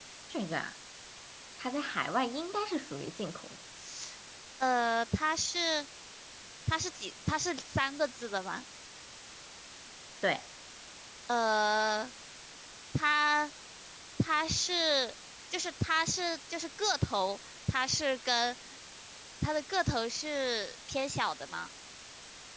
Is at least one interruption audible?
No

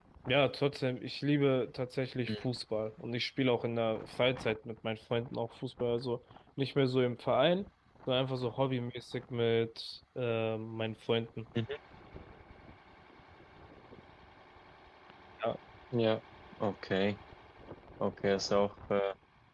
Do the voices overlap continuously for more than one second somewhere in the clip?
No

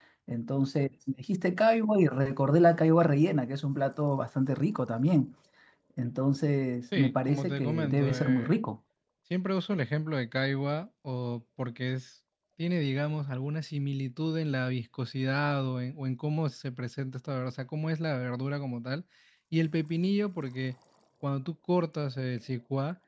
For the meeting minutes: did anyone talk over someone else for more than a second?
Yes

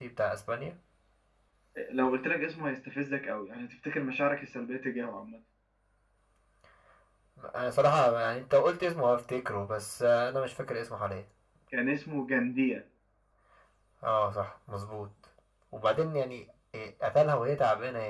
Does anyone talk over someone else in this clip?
No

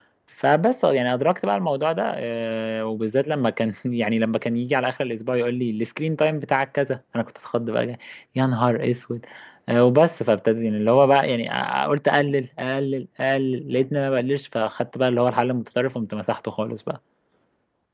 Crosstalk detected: No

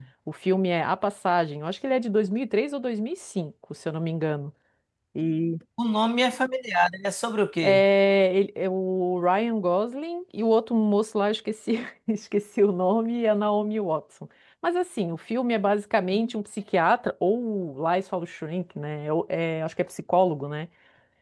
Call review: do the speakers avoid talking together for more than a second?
Yes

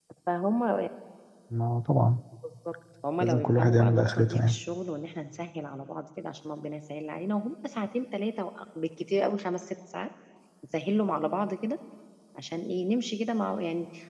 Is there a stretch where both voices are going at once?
Yes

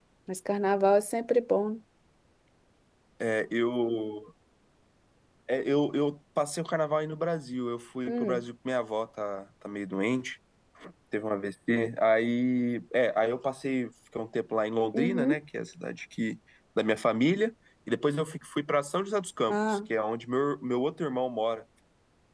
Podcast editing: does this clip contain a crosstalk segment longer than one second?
No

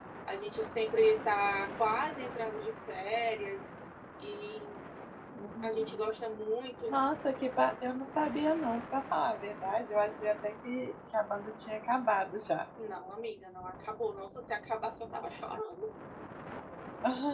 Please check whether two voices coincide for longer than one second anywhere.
No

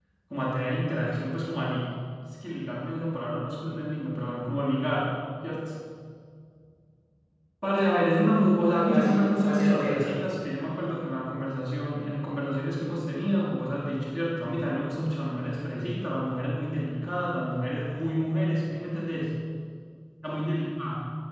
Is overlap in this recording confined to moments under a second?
No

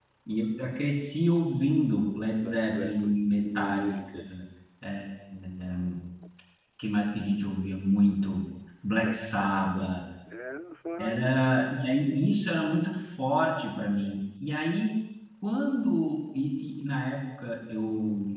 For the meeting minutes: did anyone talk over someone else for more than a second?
Yes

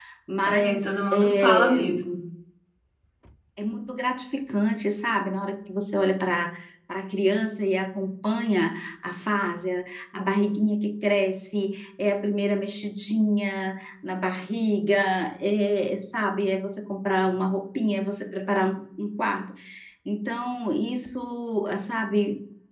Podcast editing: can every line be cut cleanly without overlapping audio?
No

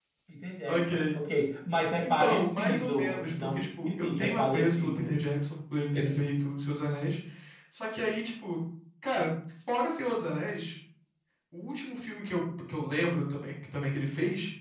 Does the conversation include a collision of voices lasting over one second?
Yes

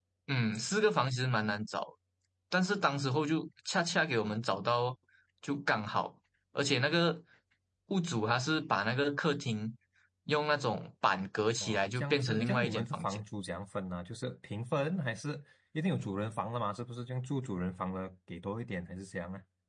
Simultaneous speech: Yes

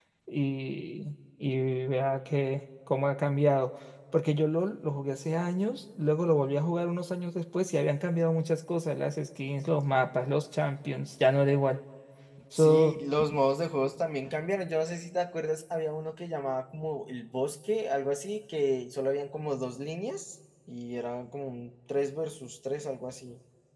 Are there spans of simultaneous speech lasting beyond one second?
No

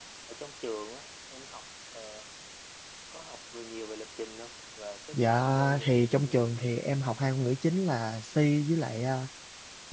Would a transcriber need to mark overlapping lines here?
Yes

